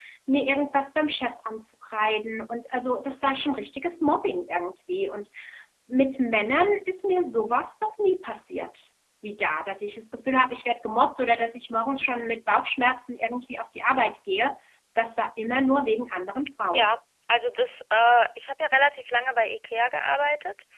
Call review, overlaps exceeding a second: none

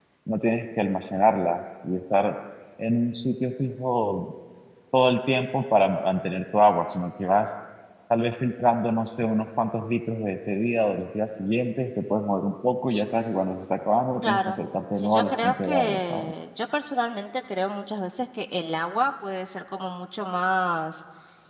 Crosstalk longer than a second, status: present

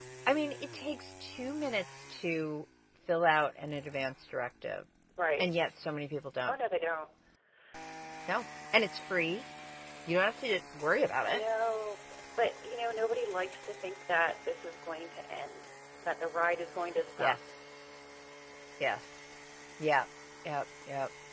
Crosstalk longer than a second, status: none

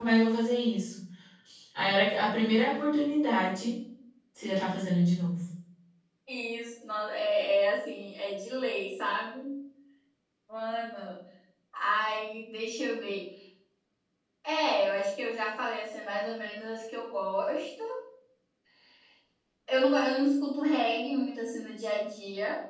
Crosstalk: none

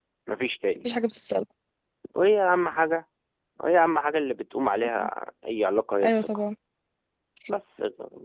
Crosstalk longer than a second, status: none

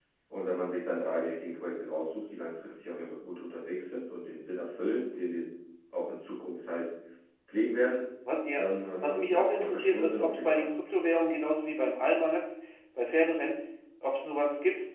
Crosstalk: present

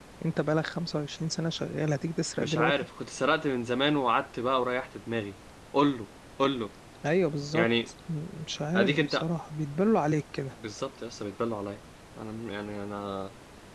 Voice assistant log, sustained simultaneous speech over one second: none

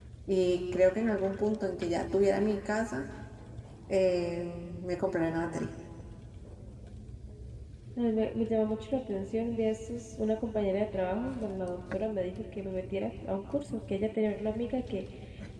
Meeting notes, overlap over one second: none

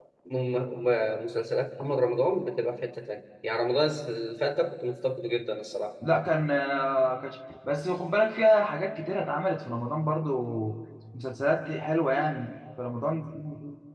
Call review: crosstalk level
none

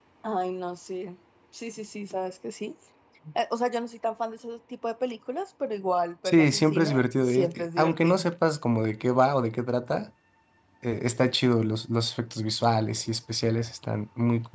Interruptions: present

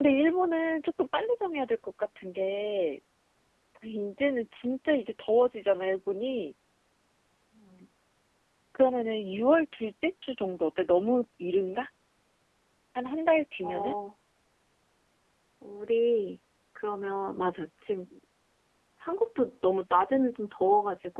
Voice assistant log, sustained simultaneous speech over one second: none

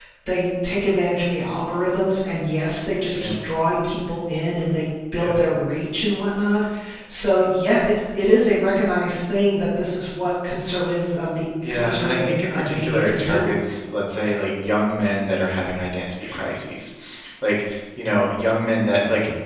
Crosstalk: present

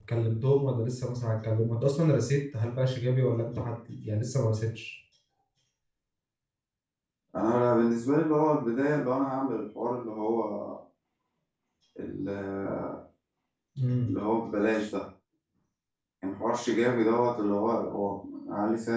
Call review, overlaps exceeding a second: none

